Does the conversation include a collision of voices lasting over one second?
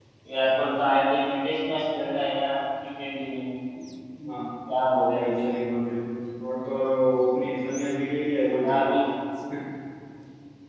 No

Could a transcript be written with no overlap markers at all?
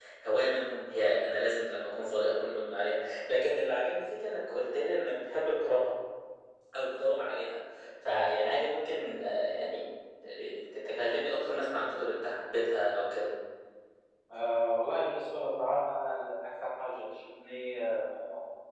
Yes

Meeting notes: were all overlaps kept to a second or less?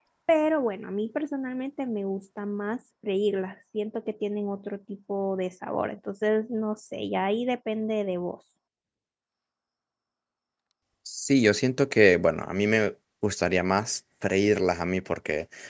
Yes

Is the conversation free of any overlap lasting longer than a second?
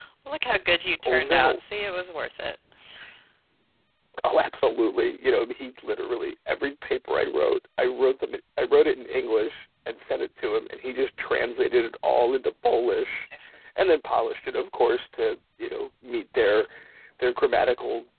Yes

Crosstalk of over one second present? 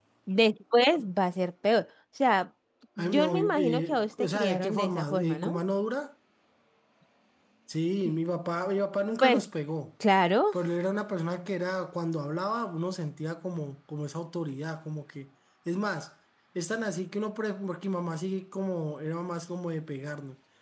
Yes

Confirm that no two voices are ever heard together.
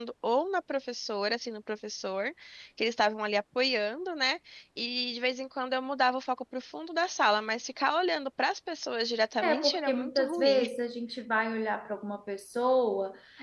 No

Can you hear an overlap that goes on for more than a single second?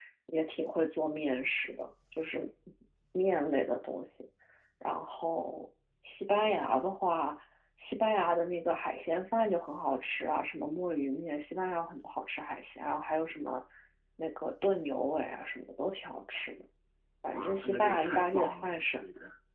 Yes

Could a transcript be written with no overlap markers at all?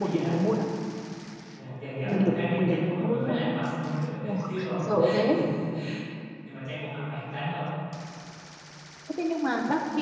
No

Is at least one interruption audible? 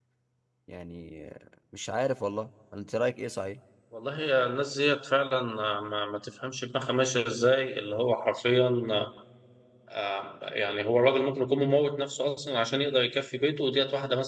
No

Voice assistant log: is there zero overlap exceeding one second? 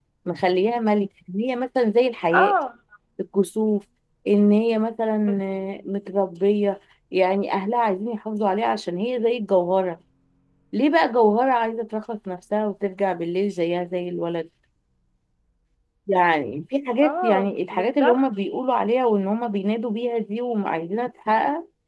No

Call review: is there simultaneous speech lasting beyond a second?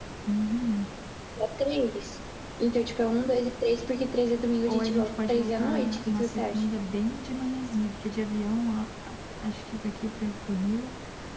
Yes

